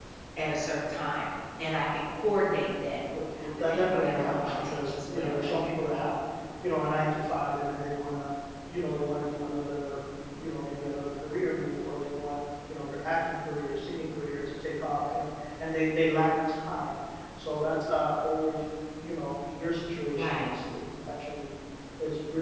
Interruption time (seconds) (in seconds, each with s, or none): 3.7 s